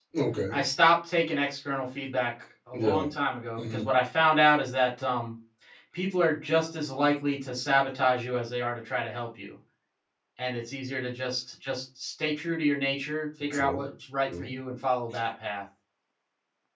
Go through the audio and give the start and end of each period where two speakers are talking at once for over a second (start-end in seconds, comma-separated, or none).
none